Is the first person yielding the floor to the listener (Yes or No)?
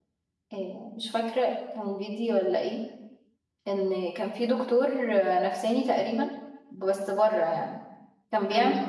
No